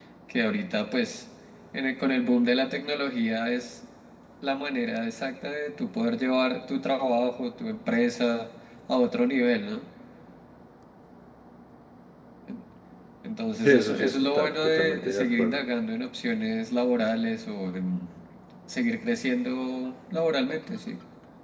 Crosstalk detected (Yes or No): Yes